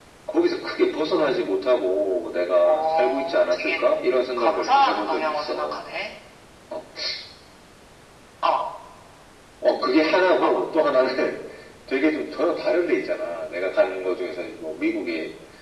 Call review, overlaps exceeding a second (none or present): present